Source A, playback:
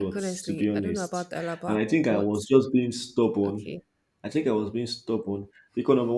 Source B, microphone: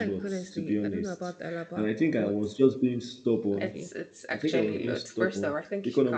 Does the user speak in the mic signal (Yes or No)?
Yes